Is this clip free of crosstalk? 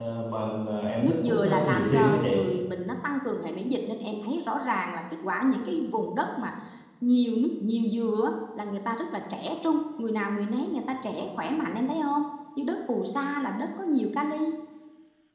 No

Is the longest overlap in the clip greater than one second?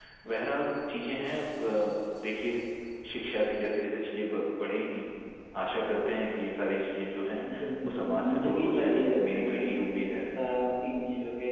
Yes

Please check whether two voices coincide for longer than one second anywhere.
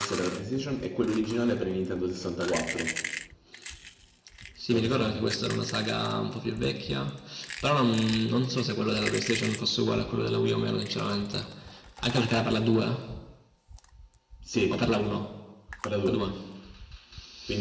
No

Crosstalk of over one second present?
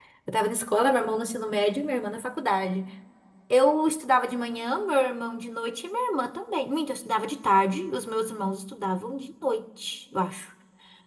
No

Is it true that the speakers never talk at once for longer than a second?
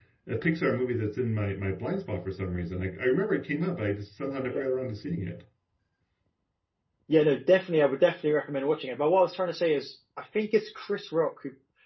Yes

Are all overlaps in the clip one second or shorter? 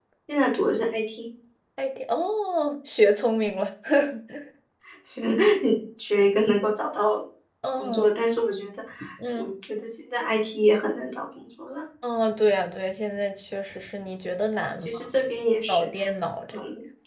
Yes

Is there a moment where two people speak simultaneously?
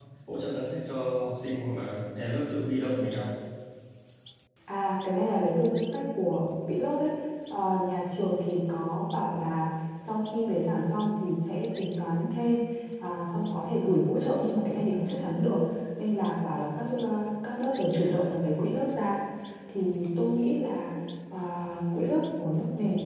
No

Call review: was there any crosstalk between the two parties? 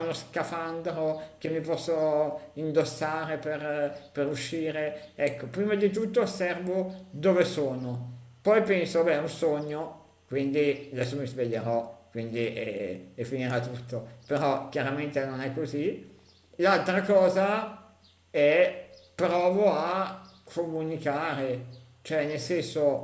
No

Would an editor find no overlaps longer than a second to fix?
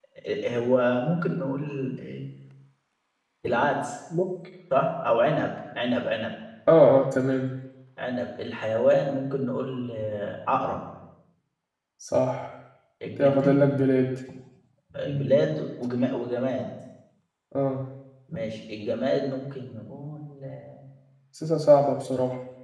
Yes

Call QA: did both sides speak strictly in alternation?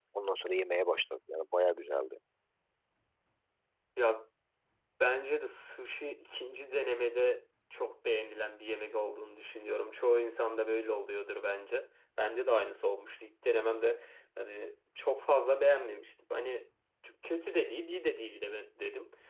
Yes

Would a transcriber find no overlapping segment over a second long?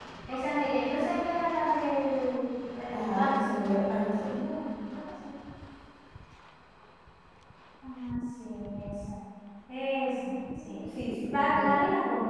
No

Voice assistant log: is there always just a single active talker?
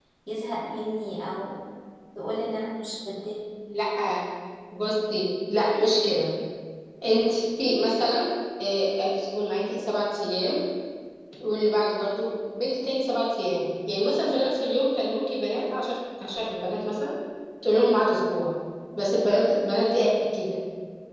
Yes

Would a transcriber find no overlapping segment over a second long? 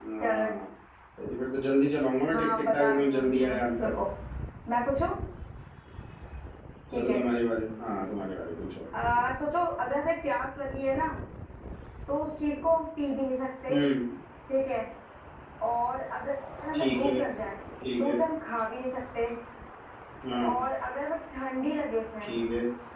No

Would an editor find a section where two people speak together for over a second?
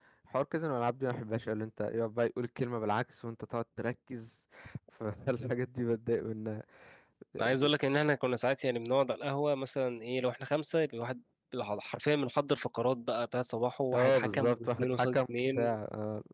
Yes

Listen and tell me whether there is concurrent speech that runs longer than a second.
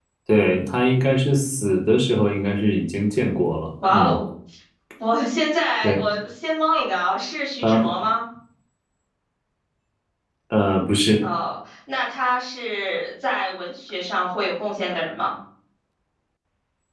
No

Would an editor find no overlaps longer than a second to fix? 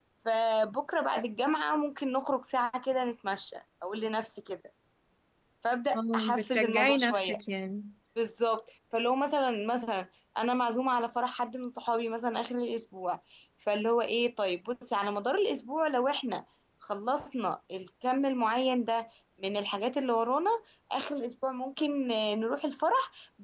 No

